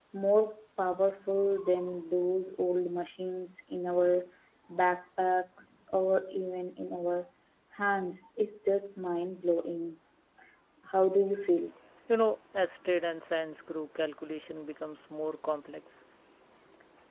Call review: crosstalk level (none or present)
none